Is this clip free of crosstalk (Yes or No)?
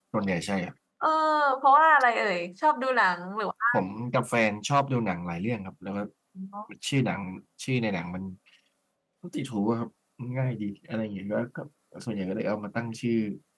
Yes